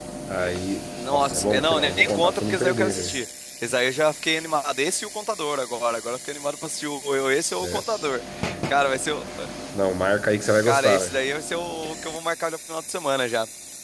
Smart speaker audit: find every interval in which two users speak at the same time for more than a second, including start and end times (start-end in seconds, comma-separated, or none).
1.1-3.1